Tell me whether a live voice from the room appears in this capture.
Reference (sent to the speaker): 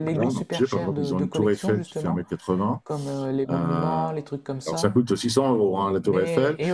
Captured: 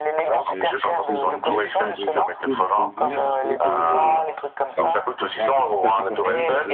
Yes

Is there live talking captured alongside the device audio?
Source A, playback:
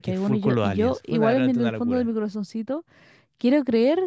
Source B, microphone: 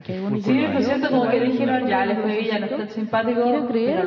Yes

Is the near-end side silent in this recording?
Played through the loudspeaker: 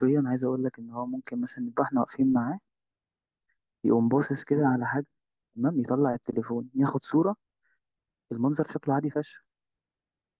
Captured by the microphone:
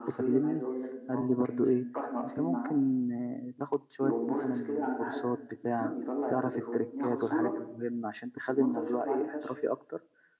No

